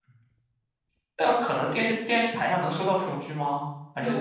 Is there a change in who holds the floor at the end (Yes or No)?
Yes